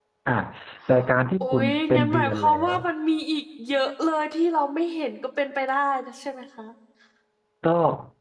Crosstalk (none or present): present